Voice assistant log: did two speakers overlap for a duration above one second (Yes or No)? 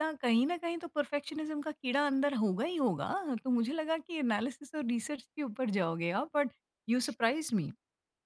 No